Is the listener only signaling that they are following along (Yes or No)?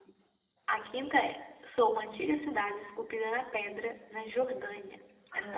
No